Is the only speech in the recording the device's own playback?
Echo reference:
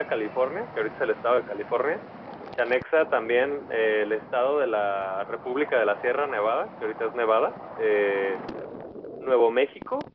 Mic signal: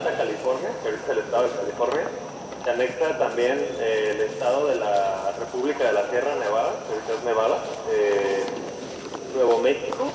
Yes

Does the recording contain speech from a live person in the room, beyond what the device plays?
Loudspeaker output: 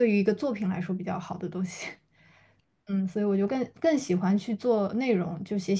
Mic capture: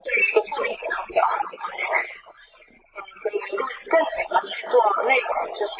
No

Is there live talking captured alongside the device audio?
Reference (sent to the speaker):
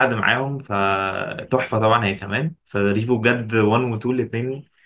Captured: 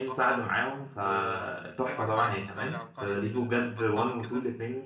Yes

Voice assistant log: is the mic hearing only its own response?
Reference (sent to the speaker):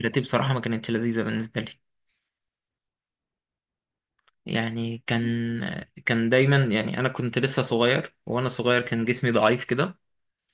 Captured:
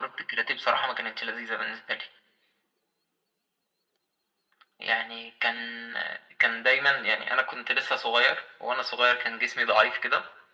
Yes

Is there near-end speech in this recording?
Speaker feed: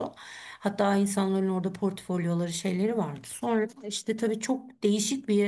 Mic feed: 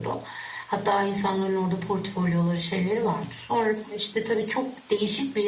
No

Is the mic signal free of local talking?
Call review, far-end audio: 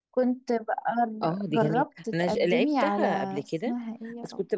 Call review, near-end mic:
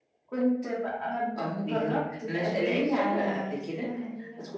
Yes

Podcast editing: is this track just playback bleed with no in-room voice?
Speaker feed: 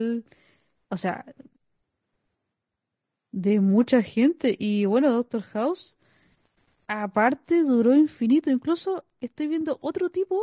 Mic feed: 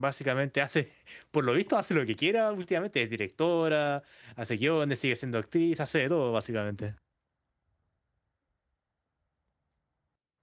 No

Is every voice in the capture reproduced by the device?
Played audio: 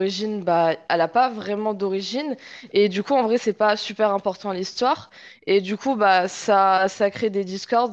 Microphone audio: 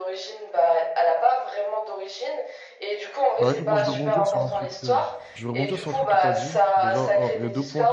No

